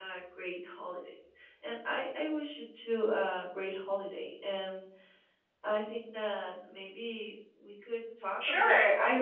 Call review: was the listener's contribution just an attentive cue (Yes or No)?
No